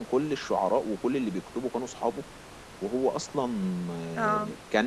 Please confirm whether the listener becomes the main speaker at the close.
No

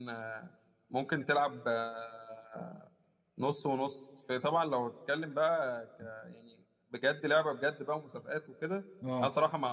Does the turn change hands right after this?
No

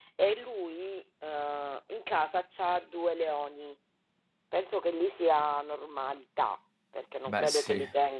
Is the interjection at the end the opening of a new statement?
No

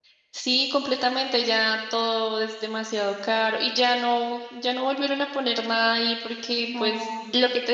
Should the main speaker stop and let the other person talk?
No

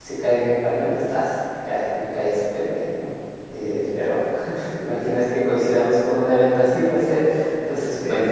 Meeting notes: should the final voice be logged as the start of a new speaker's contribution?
Yes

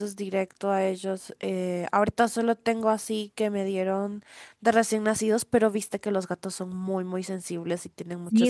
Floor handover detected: Yes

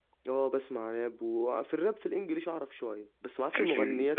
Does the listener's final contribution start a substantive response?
No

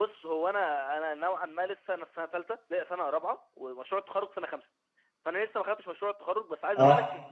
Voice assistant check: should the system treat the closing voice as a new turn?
No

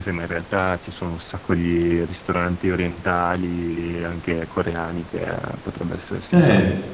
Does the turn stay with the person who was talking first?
No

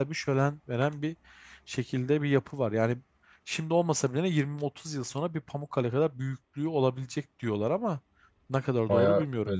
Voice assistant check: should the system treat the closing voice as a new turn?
Yes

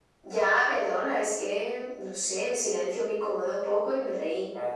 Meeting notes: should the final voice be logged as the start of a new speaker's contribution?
No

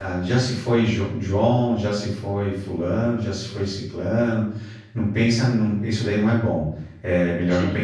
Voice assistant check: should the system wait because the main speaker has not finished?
Yes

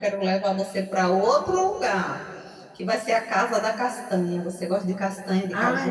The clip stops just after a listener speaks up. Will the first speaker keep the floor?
No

